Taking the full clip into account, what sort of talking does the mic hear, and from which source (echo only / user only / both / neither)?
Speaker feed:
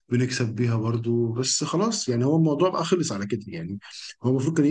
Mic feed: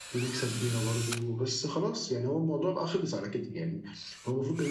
echo only